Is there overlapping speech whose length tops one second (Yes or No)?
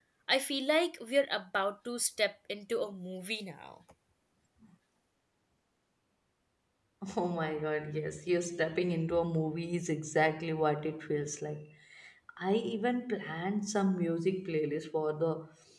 No